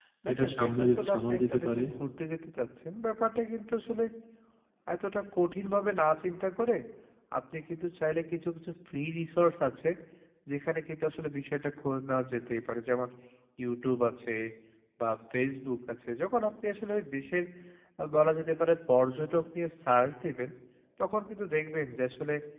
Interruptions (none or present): present